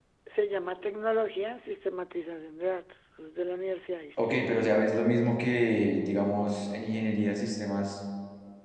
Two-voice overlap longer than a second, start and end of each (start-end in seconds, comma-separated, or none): none